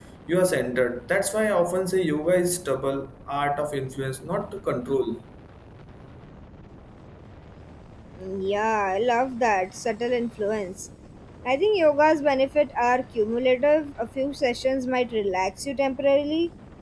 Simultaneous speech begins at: none

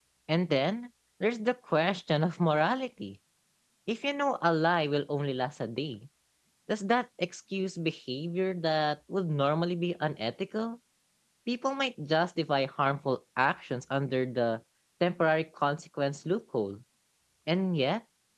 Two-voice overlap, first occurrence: none

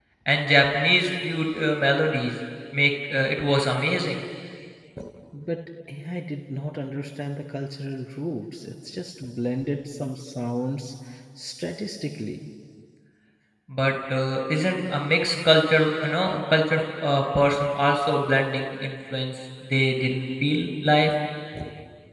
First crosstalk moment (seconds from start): none

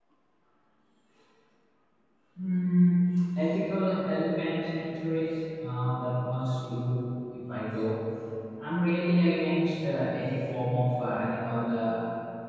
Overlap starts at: none

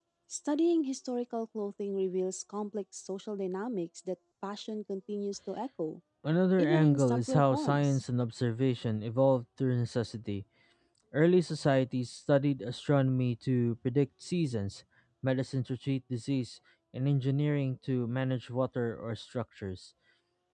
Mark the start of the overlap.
7 s

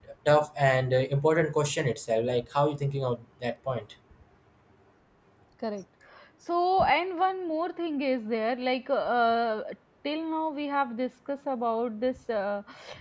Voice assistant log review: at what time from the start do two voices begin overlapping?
none

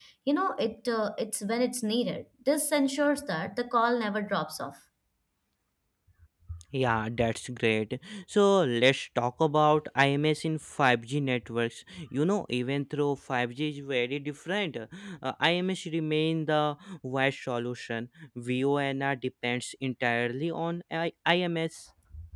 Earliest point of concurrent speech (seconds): none

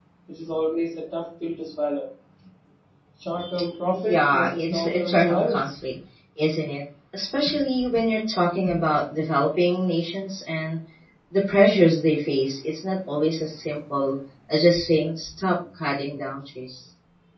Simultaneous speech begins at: 4 s

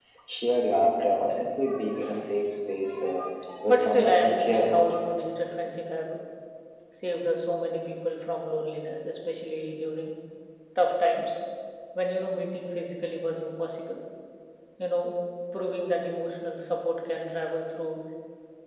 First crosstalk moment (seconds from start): 4 s

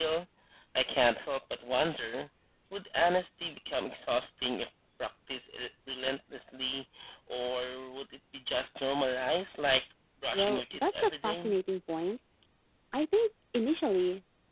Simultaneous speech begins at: 10 s

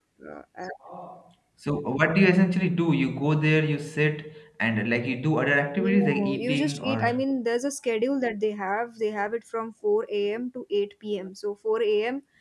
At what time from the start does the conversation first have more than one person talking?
6 s

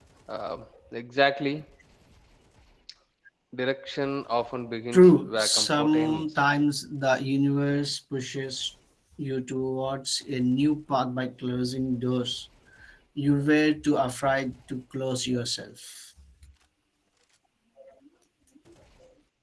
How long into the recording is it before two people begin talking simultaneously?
5 s

